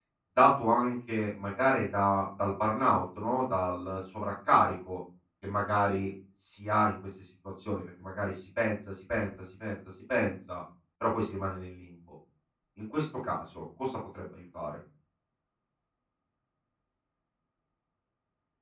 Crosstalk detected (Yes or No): No